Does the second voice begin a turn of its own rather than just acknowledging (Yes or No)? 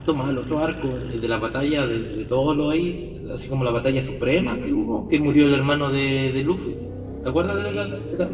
Yes